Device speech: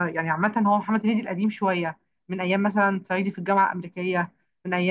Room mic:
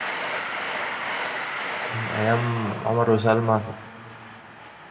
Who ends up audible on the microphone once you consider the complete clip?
user only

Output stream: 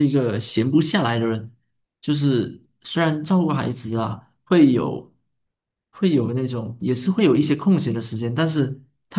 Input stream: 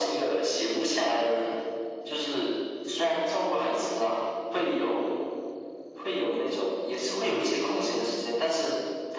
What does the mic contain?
echo only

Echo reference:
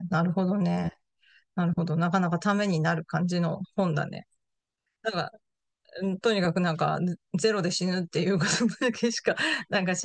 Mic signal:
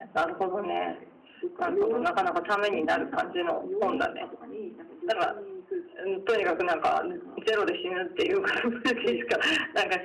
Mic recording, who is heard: both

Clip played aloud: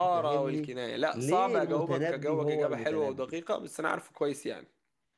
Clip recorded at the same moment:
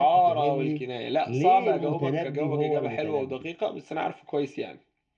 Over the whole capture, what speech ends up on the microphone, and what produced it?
echo only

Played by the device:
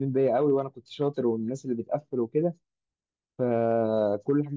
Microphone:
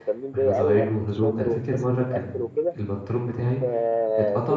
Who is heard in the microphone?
both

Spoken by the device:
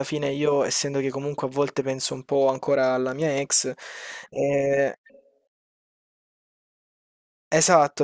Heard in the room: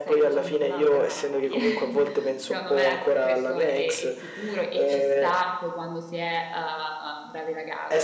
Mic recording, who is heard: both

